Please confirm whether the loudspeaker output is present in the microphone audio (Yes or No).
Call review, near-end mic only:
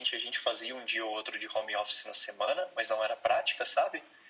Yes